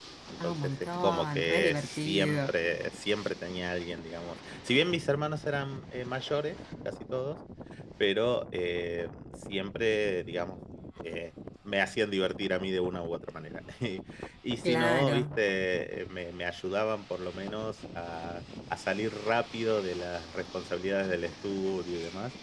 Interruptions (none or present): present